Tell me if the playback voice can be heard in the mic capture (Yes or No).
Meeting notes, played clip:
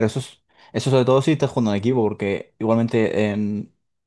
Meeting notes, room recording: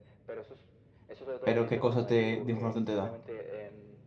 Yes